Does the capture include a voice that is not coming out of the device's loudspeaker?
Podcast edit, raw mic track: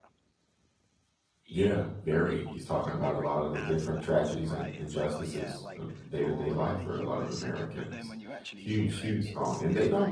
Yes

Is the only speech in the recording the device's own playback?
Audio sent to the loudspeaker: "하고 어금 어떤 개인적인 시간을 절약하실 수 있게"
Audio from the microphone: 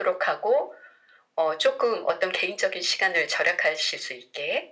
Yes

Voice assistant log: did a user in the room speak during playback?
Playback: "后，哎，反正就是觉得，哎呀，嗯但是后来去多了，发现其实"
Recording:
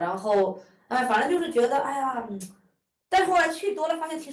No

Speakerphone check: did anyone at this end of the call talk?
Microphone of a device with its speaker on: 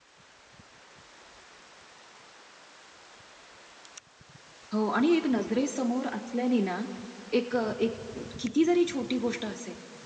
Yes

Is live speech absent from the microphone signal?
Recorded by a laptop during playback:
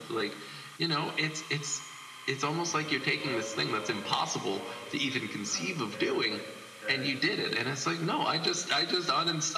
No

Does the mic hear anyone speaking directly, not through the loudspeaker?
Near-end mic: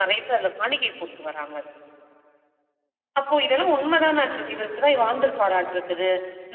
No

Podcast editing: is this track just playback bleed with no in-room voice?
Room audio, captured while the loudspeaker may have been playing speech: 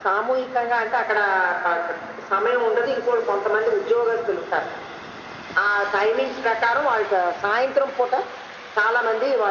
Yes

